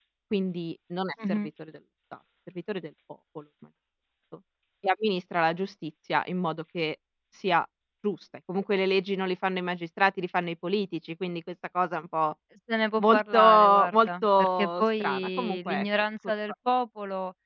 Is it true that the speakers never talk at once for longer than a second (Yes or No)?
No